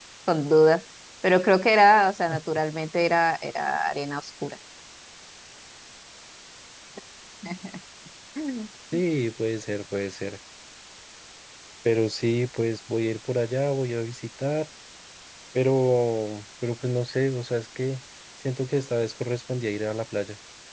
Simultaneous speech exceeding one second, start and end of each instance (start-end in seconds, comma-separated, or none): none